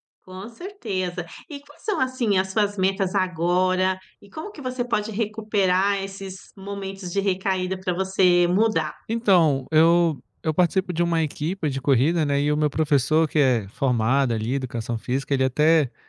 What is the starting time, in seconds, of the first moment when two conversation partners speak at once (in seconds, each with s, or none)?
none